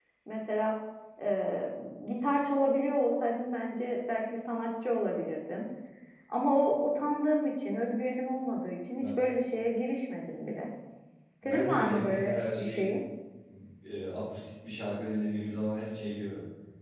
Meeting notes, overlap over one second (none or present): present